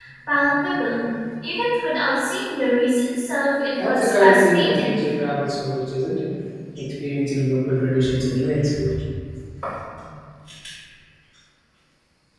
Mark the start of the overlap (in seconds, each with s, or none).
3.8 s